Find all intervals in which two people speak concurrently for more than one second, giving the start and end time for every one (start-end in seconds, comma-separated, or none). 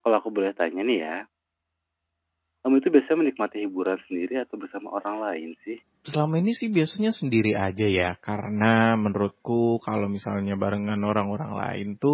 none